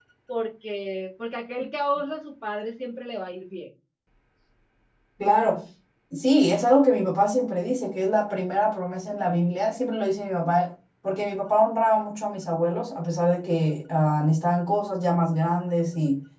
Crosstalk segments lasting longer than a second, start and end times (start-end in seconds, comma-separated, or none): none